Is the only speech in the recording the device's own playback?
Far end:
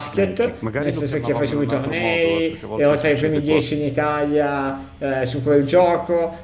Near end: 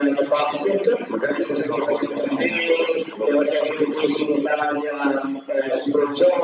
Yes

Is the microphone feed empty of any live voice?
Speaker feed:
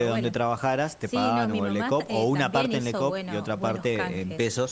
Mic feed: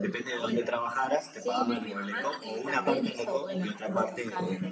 Yes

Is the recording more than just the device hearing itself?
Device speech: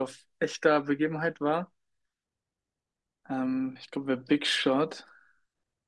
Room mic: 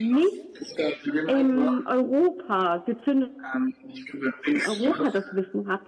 Yes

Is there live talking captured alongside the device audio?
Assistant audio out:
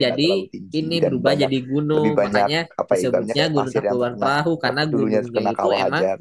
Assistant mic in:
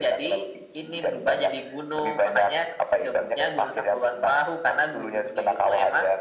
No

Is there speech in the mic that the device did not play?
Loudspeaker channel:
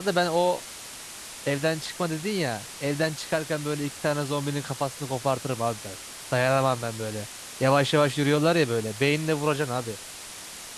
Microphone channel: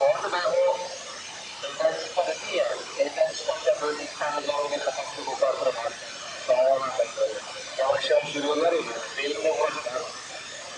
No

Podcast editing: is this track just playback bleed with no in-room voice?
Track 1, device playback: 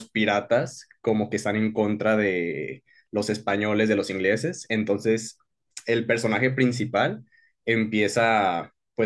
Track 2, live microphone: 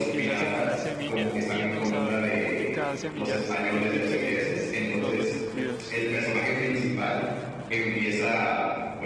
No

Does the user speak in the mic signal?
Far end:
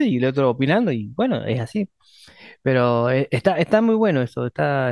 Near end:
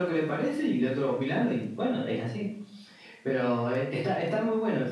No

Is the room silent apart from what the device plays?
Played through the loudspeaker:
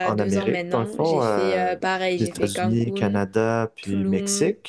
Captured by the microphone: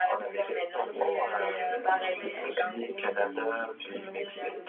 No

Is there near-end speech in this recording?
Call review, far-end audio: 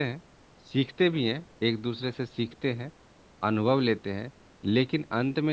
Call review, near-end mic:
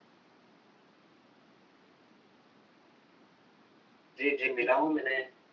Yes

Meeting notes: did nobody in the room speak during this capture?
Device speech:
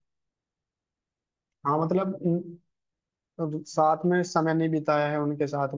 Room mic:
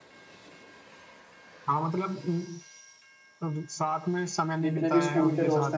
No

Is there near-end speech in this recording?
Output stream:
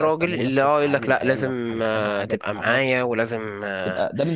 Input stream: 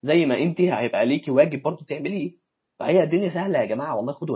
Yes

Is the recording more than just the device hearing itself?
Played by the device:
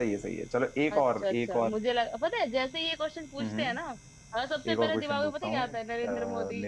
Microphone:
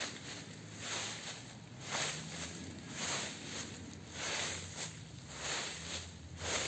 No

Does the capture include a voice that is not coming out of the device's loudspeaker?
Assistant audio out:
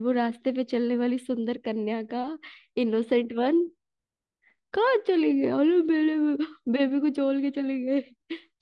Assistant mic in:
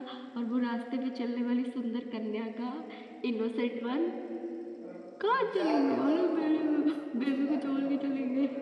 Yes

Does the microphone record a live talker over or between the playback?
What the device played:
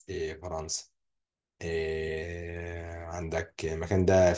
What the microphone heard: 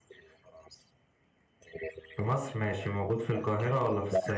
Yes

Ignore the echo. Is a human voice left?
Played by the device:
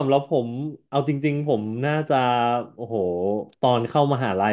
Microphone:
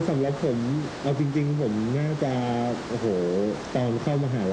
No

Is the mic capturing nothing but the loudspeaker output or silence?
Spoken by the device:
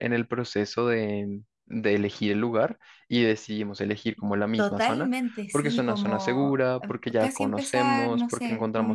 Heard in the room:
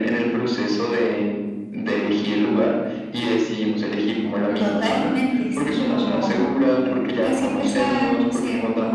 Yes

